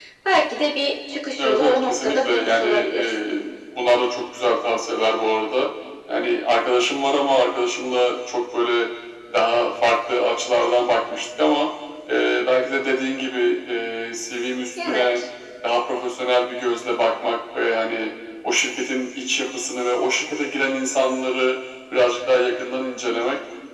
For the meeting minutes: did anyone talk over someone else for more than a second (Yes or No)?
Yes